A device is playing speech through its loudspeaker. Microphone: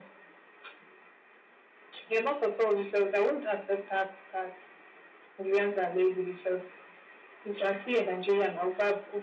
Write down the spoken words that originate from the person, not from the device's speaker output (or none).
none